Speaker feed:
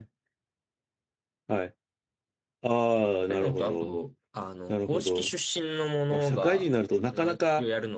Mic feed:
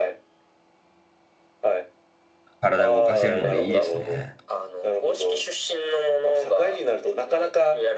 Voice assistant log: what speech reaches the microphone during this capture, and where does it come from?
both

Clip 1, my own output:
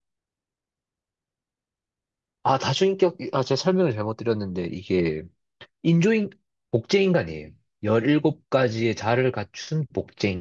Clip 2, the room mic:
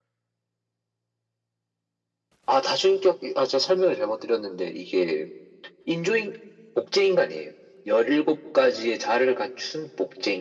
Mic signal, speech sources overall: echo only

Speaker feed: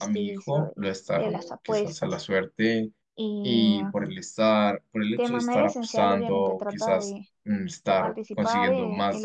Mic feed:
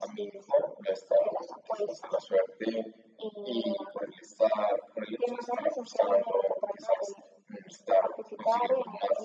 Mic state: echo only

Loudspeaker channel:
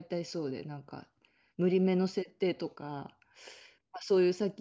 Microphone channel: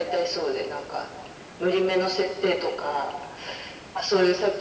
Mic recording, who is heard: echo only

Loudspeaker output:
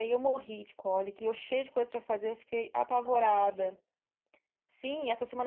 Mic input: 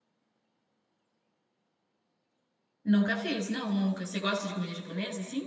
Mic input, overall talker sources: user only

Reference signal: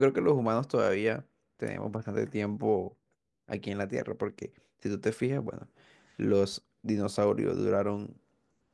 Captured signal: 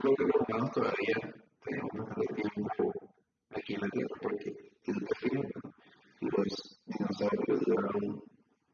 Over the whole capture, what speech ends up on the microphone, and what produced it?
echo only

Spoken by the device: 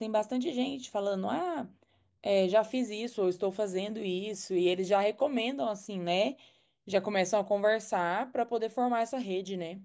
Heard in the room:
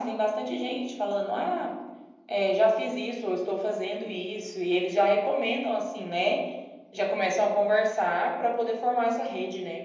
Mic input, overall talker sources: echo only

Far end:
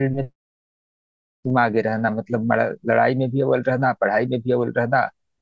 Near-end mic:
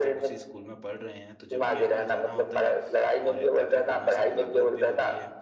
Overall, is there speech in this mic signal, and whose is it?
both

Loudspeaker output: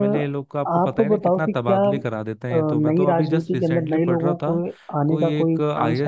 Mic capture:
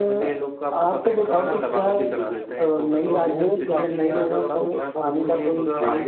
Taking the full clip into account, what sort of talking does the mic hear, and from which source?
both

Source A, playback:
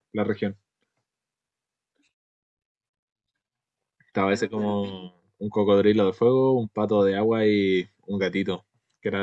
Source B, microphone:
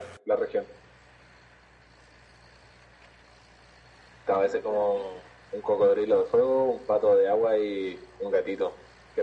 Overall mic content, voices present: echo only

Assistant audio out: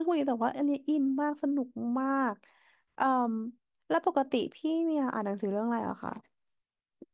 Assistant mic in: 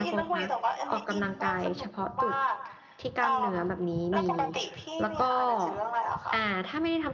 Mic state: both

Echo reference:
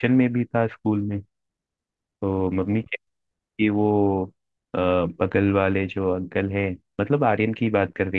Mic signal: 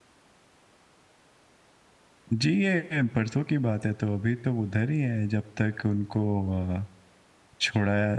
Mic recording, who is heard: user only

